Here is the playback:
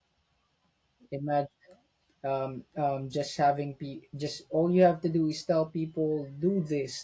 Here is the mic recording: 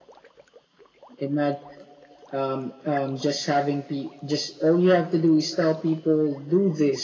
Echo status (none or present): present